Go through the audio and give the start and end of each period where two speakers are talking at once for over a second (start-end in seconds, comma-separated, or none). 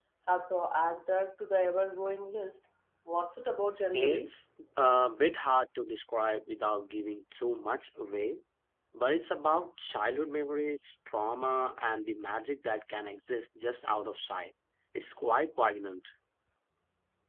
none